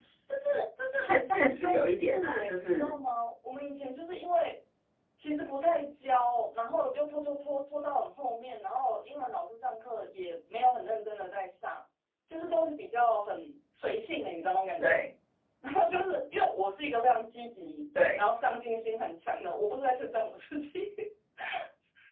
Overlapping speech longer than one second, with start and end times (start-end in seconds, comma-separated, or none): 1.0-3.0